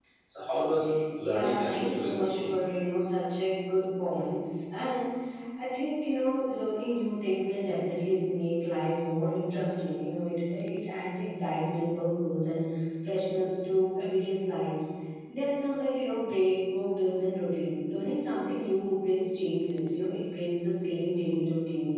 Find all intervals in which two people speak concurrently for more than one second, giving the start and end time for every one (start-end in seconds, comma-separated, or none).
1.2-2.5